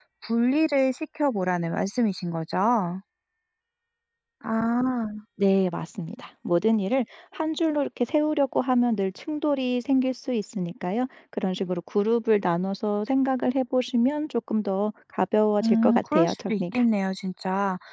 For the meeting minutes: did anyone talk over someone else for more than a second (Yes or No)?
Yes